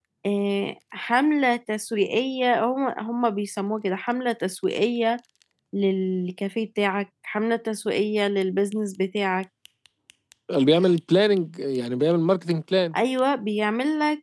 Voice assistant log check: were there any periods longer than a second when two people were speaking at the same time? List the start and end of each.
none

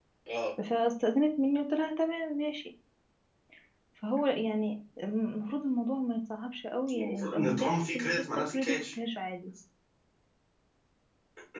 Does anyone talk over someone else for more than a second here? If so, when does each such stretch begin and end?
6.9-9.0

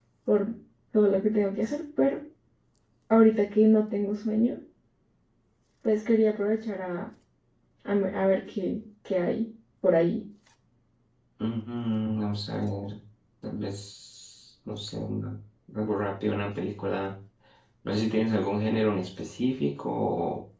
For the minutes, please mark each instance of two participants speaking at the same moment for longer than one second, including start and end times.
none

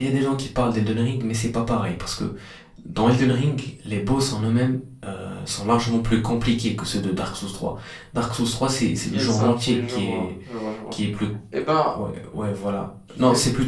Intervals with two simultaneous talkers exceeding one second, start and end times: 9.1-10.3

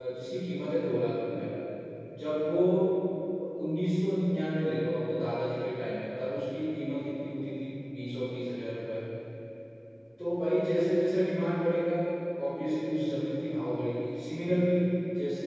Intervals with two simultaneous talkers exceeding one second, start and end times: none

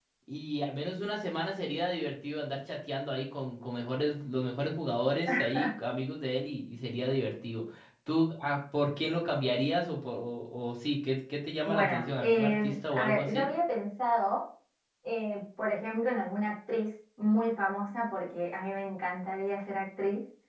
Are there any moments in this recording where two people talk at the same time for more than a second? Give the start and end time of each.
11.7-13.5

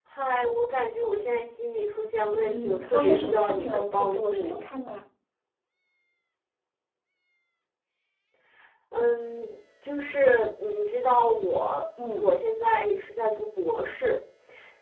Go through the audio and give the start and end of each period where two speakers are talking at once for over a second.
2.3-4.6

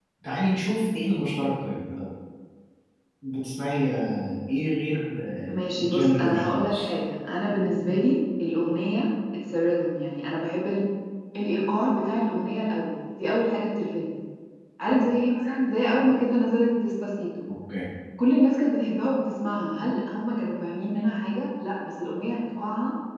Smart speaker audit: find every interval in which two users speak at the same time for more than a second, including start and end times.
5.5-6.9

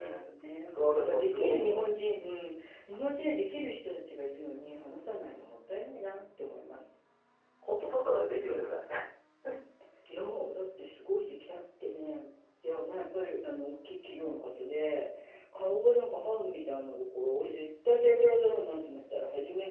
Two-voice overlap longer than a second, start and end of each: 0.7-2.3

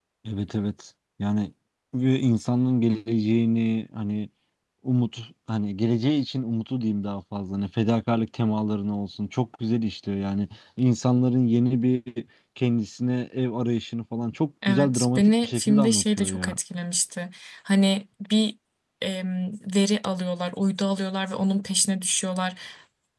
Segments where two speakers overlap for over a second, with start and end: 14.7-16.6

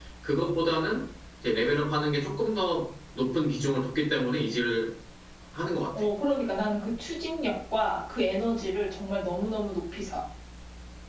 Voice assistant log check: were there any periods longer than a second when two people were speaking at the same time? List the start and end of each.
none

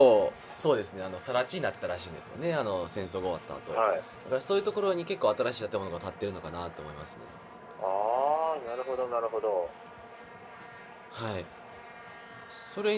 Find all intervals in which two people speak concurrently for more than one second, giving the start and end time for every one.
none

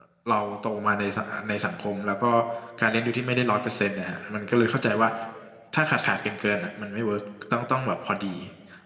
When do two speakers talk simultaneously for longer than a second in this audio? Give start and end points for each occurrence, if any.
none

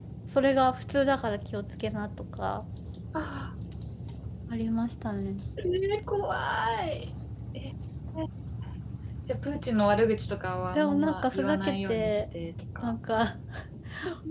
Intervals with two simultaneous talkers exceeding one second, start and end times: 10.7-12.2

